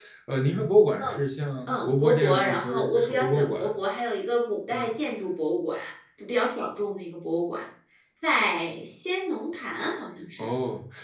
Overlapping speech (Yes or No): Yes